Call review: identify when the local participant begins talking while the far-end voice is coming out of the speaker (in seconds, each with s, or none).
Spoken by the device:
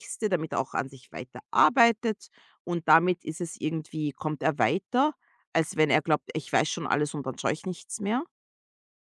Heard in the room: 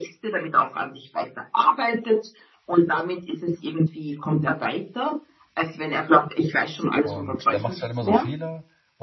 7.0 s